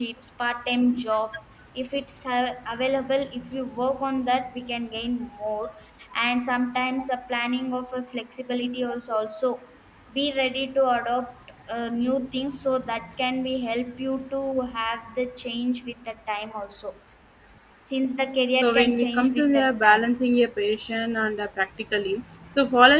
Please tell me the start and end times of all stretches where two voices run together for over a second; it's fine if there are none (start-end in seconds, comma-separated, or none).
18.6-20.1